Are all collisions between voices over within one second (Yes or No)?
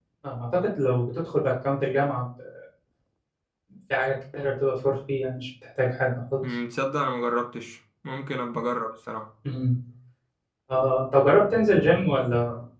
Yes